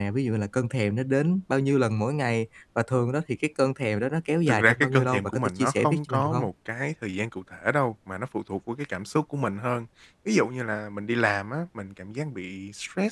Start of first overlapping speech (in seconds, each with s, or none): 4.5 s